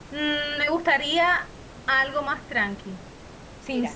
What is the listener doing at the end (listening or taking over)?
listening